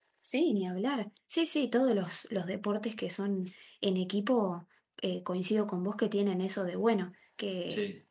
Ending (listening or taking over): listening